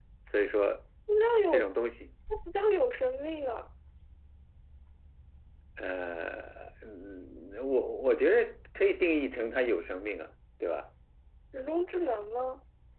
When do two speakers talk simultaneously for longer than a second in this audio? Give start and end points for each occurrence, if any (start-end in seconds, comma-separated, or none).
none